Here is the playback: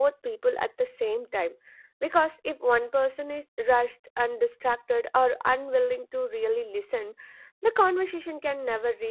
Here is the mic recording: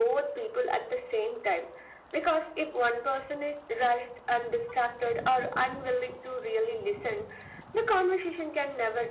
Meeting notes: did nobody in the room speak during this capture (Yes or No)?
Yes